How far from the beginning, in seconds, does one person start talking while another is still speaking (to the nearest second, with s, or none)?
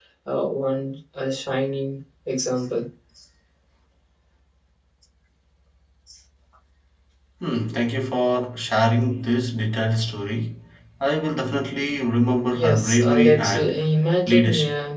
13 s